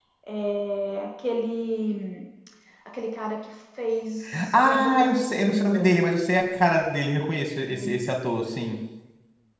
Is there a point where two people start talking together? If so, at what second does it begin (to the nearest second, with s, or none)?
5 s